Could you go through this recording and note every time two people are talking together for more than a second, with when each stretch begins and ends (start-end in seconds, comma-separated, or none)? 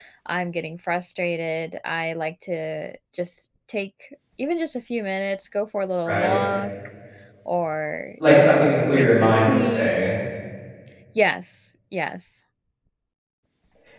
8.4-9.9